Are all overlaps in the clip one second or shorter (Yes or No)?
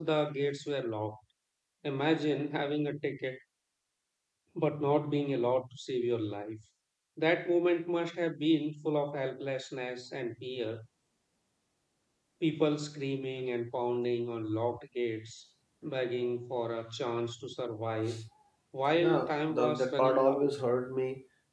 No